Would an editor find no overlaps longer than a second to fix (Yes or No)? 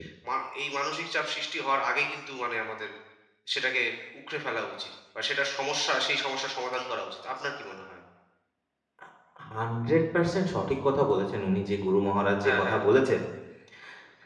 Yes